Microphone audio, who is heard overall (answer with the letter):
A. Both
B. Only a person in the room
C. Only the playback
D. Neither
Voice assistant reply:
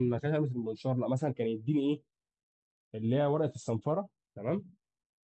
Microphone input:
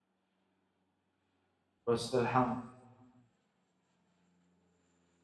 B